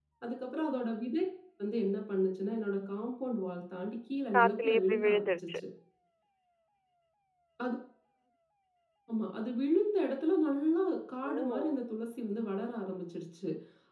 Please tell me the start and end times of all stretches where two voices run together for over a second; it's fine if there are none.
4.3-5.6

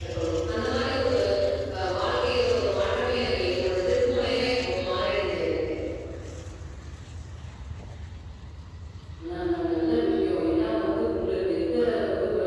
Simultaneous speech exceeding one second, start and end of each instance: none

